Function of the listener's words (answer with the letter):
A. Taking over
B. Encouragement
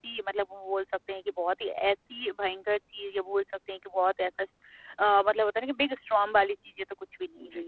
A